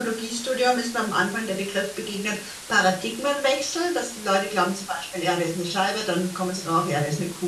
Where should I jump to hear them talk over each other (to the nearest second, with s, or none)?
none